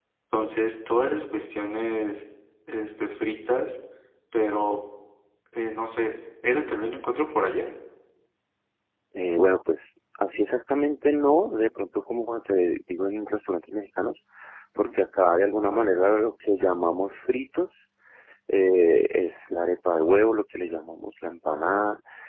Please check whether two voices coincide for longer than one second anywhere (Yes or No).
No